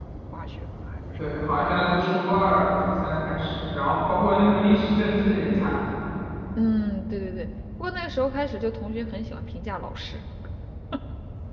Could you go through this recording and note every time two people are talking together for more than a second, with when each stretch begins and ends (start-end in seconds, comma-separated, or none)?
none